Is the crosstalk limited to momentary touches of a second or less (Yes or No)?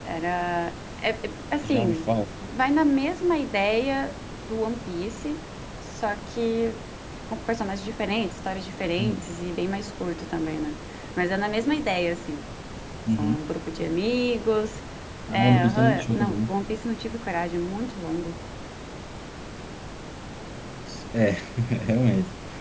No